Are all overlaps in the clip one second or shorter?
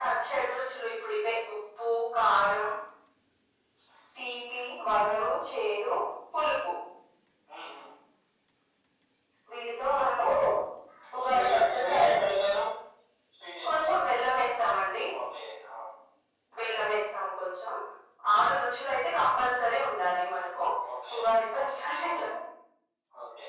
No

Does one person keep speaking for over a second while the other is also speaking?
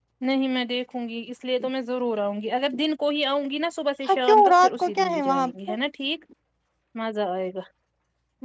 Yes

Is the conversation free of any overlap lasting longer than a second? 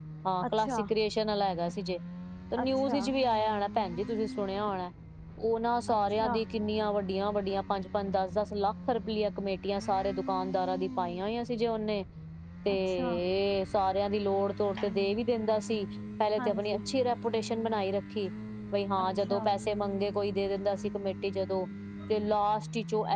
Yes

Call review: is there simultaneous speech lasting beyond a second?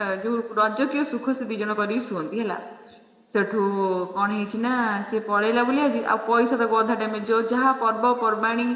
No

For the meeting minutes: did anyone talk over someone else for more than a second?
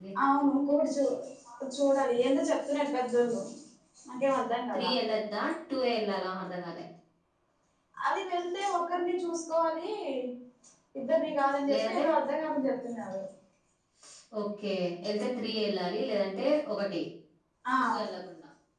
No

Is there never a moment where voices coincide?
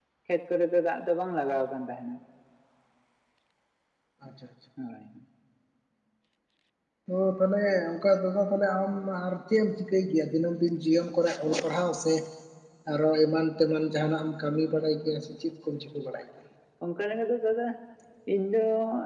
Yes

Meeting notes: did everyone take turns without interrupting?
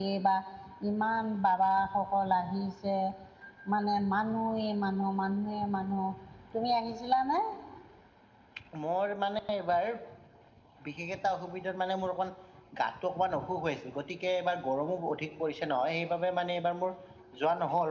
Yes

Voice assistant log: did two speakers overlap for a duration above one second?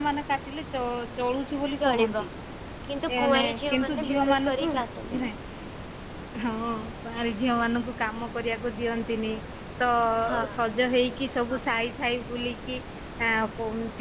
Yes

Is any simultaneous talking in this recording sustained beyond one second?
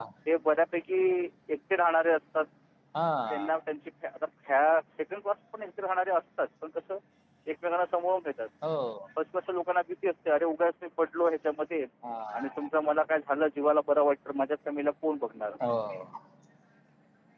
No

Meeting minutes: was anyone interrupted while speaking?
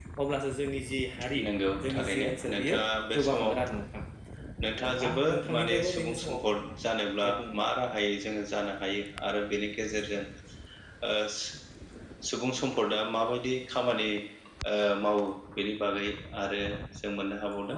Yes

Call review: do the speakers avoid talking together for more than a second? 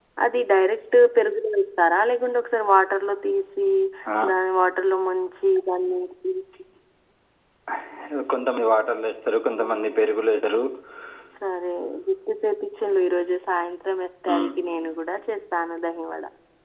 Yes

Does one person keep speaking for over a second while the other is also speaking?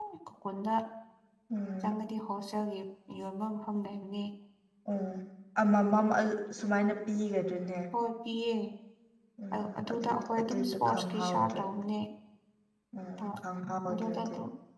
Yes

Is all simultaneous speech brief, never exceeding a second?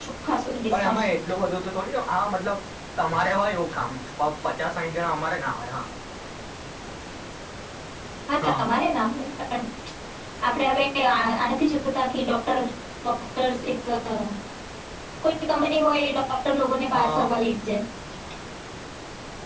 Yes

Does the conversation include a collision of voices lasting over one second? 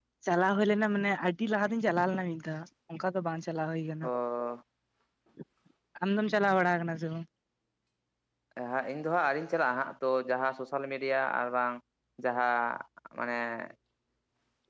No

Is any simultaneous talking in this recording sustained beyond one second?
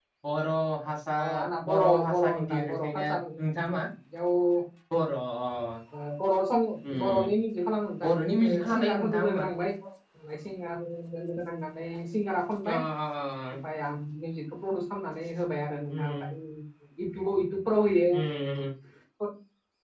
Yes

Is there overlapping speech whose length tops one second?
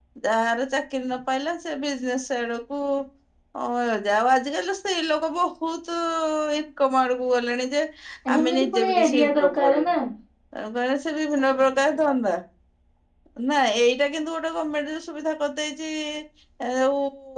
Yes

